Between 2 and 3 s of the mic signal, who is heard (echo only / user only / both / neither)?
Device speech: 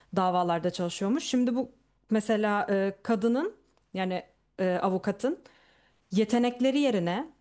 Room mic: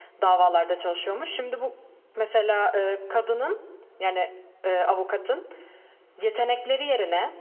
echo only